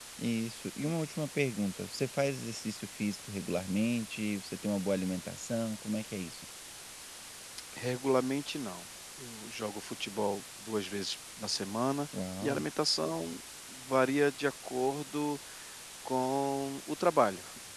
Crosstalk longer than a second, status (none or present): none